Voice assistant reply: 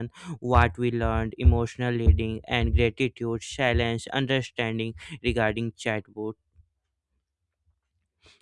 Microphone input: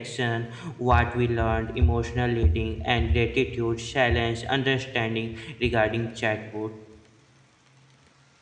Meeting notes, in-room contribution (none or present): none